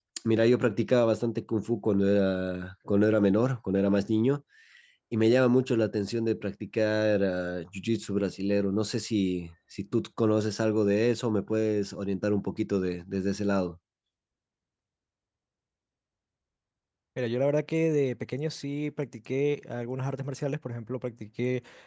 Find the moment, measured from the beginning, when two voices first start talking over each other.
none

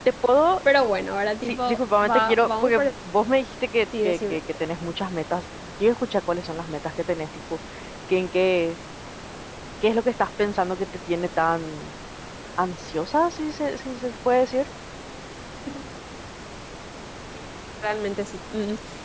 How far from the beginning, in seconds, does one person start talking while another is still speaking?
1.5 s

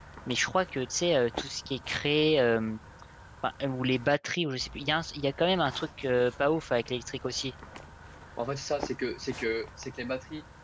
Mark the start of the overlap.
none

